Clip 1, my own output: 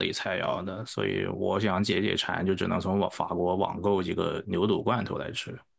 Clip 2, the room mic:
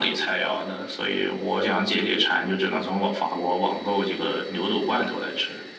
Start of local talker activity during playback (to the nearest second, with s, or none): none